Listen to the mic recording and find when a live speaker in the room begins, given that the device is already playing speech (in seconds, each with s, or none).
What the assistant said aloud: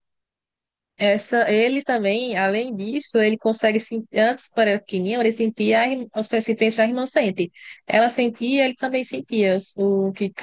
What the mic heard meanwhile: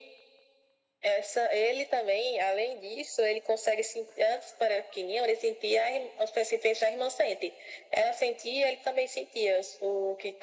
none